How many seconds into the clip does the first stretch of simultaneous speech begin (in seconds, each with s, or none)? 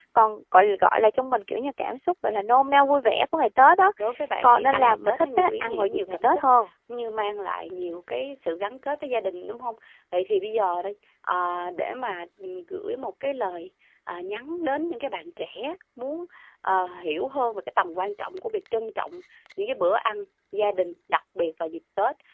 4.4 s